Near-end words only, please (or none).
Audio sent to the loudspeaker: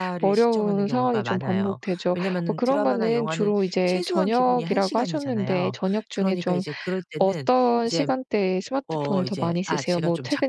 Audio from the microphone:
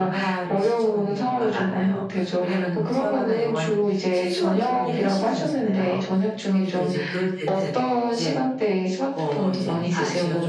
none